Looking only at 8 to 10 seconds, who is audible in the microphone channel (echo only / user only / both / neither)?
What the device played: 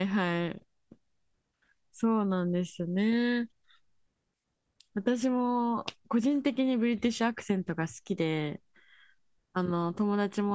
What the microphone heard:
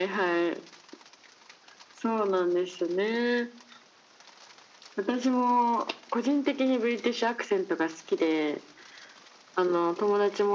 echo only